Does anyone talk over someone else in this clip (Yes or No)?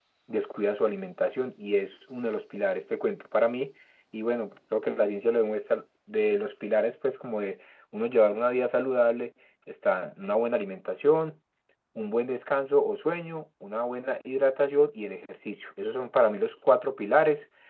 No